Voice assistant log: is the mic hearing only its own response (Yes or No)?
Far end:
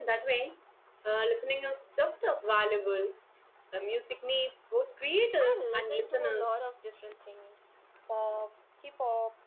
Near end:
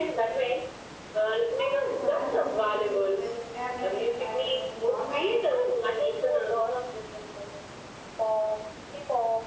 No